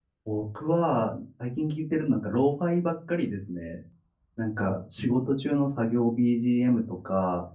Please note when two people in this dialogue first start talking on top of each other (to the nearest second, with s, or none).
none